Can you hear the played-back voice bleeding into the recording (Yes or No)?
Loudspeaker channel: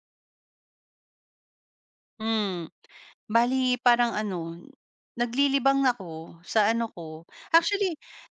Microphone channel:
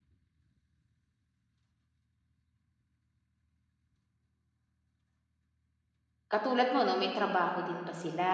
No